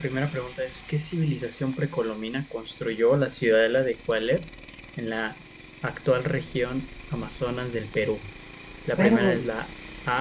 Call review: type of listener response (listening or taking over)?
listening